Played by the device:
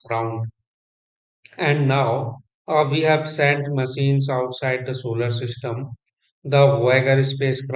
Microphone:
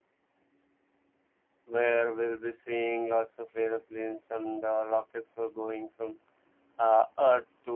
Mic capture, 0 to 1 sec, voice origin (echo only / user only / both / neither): neither